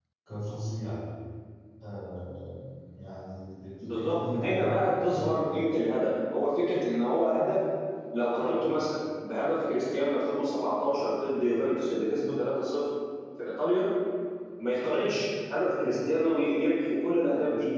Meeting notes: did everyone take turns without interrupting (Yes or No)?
No